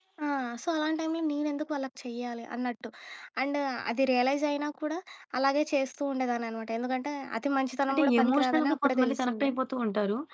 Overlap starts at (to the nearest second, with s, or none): 8 s